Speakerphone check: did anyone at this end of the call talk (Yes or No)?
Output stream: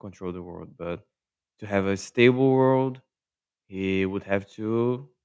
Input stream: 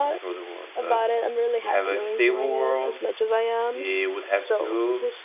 Yes